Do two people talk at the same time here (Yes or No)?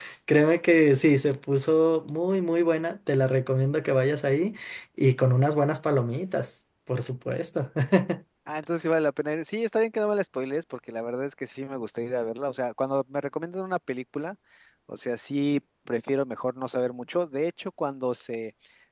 No